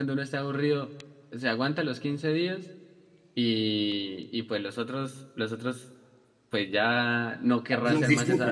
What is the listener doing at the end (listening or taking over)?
listening